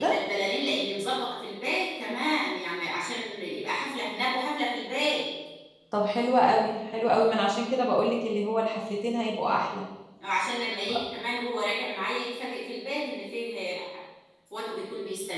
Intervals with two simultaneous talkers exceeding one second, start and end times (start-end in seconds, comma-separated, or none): none